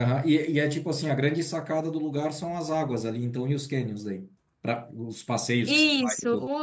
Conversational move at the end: taking over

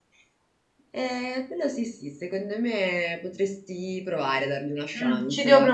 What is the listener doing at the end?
taking over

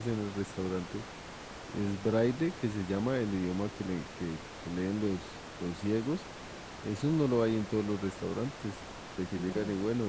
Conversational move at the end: listening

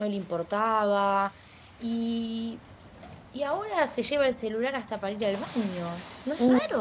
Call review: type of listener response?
taking over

